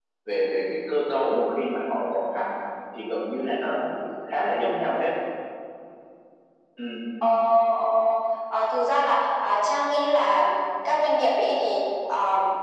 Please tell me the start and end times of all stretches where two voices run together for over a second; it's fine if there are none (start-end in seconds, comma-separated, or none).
none